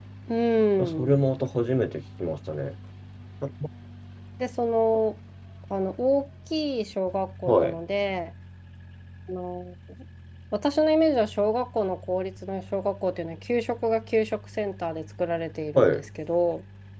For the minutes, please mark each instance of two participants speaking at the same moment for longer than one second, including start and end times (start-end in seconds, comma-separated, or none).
none